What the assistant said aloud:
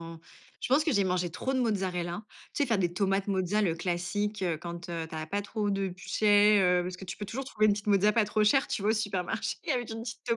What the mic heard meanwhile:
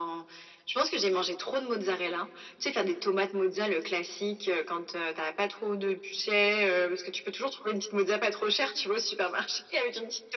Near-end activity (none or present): none